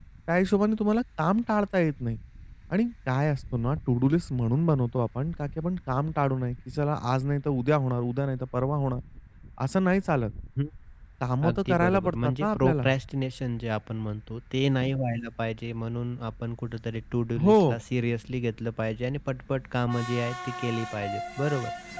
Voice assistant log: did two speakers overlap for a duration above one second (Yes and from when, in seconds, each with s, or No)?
Yes, from 11.5 s